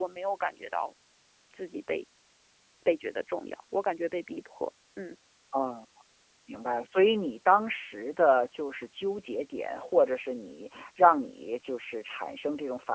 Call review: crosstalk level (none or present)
none